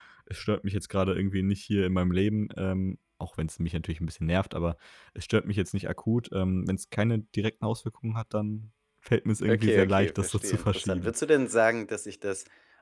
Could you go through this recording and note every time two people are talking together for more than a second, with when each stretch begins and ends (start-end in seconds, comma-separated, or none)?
9.5-11.1